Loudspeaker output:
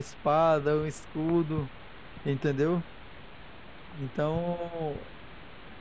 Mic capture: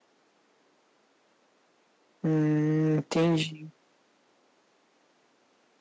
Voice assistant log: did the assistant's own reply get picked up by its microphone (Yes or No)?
No